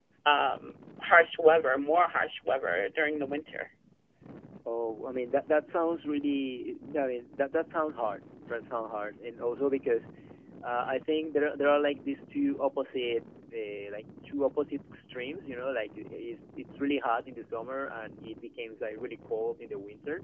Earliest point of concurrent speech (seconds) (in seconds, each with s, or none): none